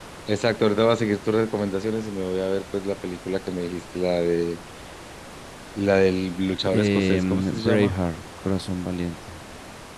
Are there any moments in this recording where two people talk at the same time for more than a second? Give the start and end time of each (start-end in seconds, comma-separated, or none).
6.7-7.9